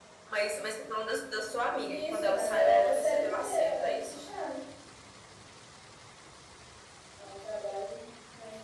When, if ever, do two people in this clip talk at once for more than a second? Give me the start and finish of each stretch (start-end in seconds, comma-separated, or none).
1.8-4.2